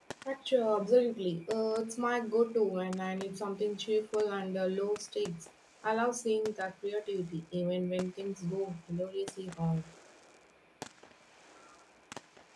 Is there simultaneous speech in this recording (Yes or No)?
No